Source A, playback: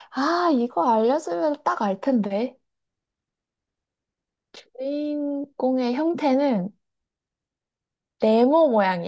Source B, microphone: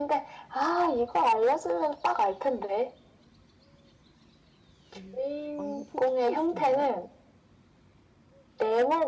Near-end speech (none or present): present